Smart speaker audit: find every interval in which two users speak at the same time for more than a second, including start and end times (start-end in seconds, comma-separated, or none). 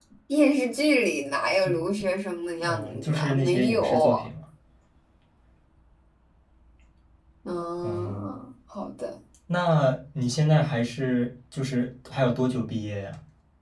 2.6-4.1